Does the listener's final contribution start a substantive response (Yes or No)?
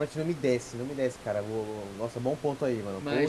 Yes